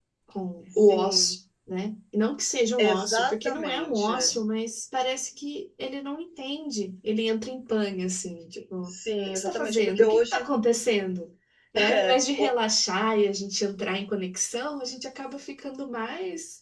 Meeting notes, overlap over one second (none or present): present